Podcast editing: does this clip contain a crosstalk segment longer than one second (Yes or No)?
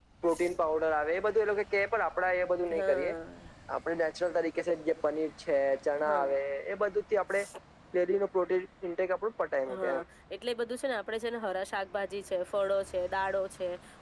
No